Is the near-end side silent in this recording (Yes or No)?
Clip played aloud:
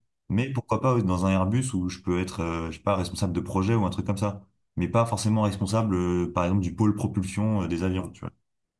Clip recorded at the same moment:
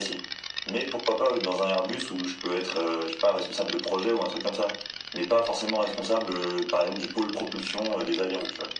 Yes